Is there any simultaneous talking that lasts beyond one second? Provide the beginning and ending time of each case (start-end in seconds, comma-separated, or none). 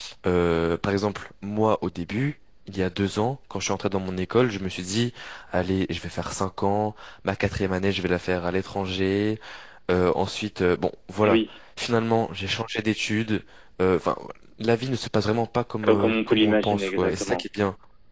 15.8-17.4